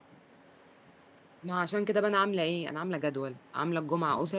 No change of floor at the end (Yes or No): Yes